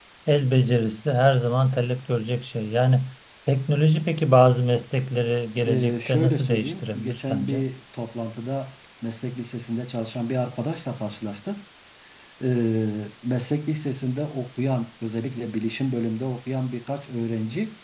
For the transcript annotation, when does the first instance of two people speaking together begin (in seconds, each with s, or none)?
5.6 s